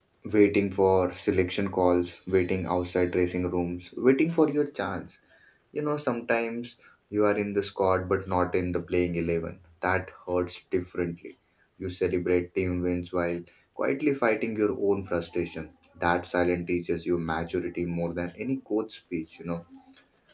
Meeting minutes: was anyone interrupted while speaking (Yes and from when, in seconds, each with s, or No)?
No